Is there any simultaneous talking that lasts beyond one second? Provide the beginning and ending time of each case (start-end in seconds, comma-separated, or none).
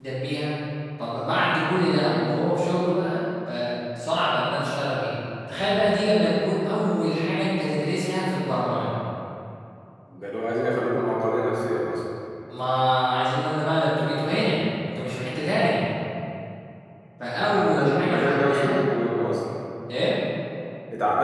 17.3-18.8